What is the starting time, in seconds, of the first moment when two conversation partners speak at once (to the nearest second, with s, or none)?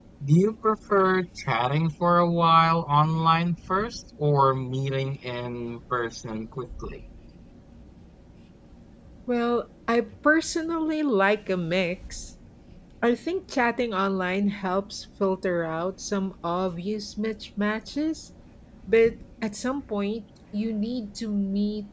none